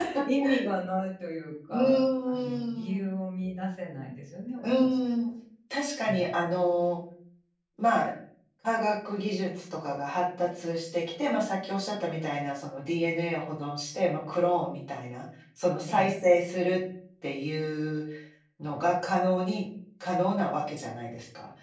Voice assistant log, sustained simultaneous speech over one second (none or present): present